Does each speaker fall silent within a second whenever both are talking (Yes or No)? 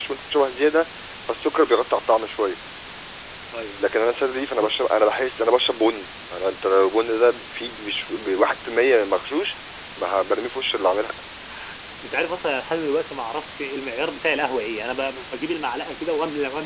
Yes